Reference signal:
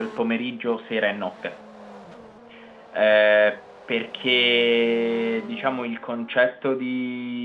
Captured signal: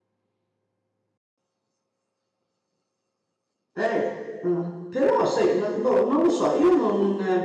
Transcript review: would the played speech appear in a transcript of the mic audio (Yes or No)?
No